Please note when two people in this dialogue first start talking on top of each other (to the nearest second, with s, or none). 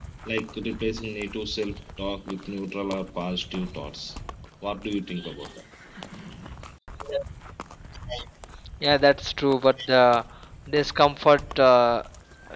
none